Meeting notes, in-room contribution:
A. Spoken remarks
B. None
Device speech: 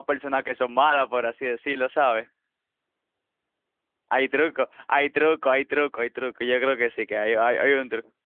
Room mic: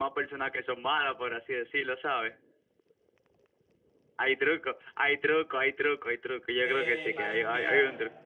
A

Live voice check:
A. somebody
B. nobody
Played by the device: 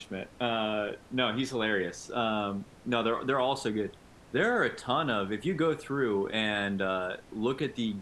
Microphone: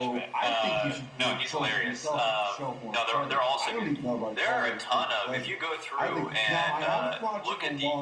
A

